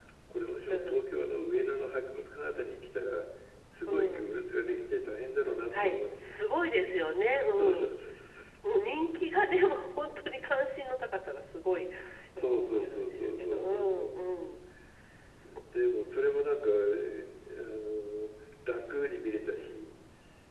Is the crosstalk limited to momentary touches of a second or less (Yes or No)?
No